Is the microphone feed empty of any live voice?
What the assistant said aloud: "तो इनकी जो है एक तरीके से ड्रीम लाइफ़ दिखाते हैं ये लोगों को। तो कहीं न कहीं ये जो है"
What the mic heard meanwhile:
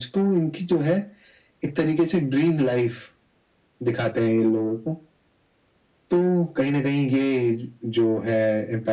Yes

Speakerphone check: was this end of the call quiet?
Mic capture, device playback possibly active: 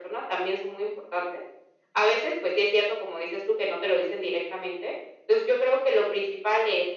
Yes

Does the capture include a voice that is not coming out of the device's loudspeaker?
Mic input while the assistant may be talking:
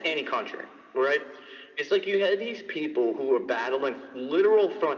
No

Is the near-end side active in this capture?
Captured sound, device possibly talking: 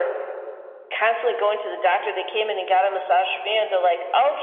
No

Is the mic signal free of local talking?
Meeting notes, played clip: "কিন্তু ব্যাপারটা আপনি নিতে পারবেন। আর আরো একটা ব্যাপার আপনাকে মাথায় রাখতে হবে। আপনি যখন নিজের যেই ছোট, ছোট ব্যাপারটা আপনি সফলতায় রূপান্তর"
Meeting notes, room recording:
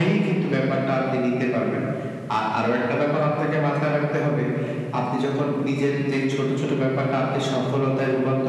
Yes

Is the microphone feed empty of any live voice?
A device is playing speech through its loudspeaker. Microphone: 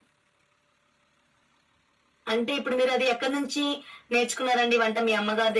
Yes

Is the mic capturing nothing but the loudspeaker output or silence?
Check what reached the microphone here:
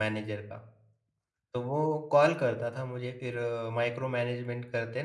No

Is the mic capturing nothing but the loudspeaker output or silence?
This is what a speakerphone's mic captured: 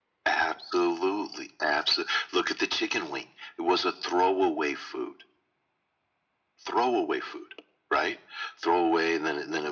Yes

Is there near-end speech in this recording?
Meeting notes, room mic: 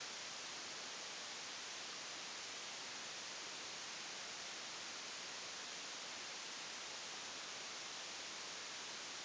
No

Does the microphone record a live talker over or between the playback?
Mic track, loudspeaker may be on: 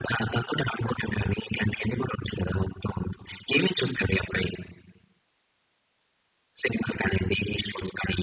No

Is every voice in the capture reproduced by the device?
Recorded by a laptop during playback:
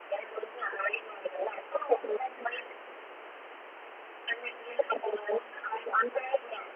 Yes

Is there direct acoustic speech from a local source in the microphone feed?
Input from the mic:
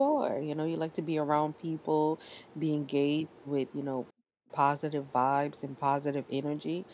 Yes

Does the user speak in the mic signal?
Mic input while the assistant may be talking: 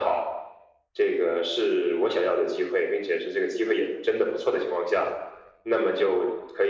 No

